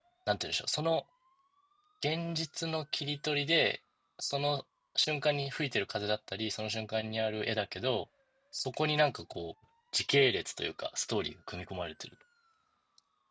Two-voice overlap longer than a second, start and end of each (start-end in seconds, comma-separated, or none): none